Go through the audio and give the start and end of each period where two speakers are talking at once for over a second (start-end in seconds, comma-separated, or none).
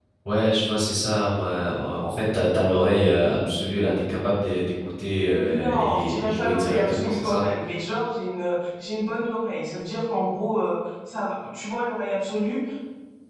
5.4-7.4